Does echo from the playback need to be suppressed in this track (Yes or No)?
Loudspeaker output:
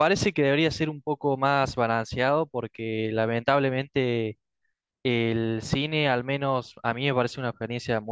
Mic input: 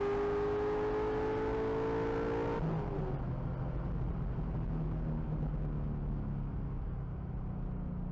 No